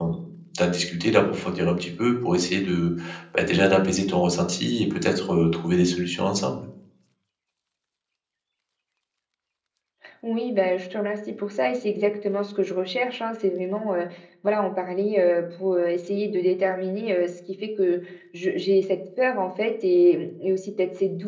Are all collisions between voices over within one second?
Yes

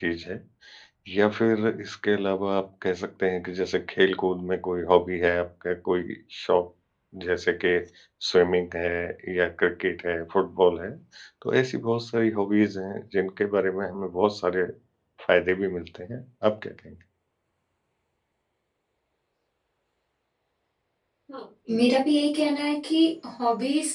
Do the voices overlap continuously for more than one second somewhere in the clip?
No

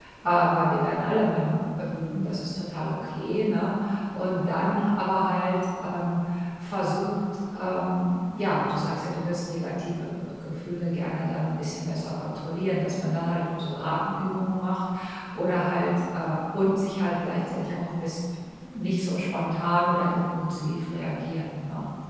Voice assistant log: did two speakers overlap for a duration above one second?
No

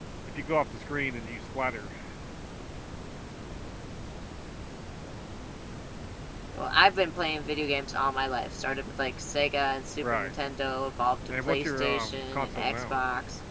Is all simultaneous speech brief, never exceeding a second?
No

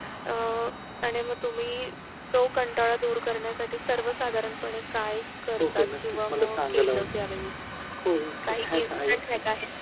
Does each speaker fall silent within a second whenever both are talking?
No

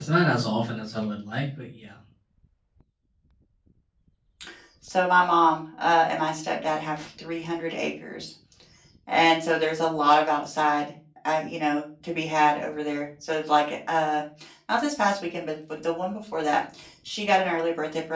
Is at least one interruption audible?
No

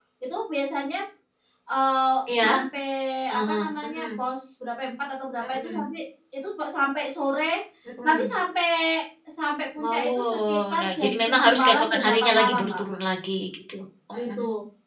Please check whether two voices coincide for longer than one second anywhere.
Yes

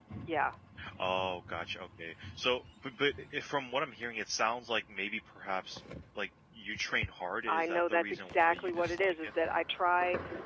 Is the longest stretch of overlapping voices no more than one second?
No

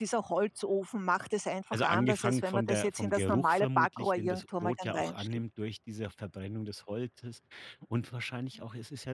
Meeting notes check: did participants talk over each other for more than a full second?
Yes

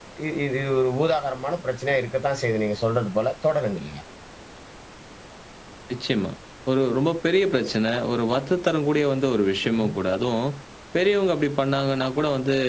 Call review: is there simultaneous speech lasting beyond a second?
No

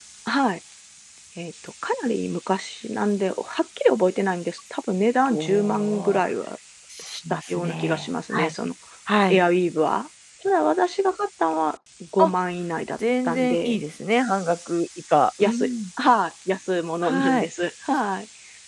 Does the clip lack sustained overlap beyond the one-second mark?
No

